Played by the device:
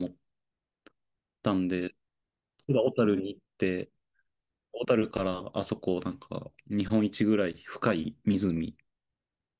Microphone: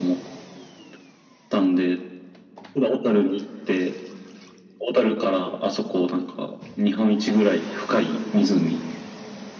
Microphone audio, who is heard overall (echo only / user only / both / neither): echo only